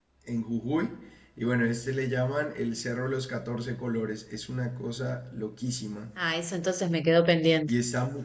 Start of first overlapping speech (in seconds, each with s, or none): none